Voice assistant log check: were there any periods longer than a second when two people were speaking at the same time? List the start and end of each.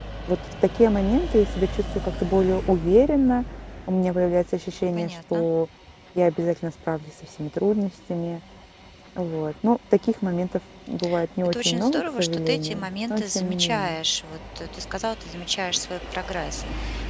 11.4-14.0

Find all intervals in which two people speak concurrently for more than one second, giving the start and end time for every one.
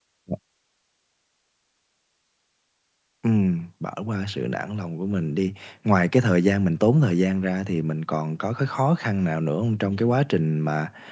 none

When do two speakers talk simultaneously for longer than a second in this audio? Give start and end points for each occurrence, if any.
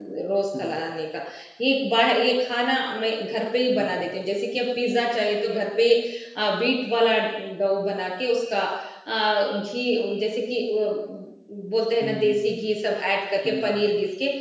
none

